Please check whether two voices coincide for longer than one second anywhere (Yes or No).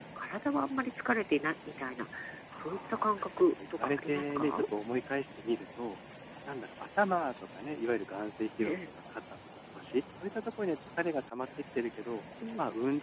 Yes